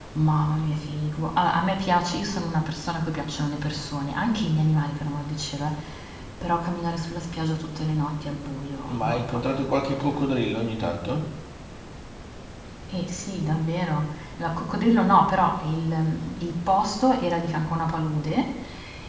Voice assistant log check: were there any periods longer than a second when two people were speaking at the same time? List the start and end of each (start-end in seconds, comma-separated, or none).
8.9-10.2